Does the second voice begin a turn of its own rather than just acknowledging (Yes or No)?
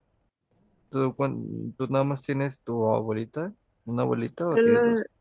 Yes